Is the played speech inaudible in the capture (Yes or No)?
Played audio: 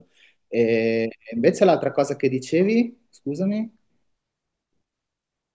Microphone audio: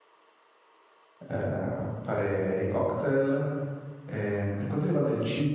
Yes